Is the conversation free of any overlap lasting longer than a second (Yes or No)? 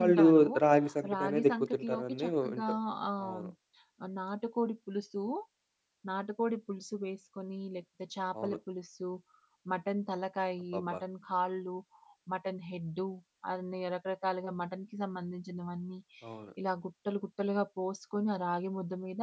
No